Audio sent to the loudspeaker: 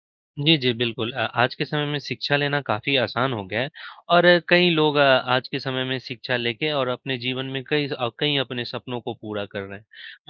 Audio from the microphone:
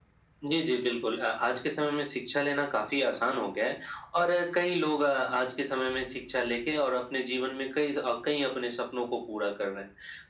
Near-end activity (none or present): none